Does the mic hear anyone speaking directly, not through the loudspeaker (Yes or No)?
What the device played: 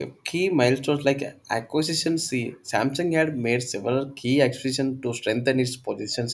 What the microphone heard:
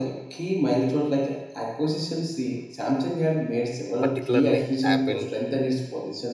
Yes